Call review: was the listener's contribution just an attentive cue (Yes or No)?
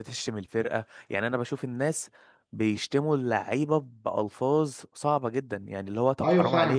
No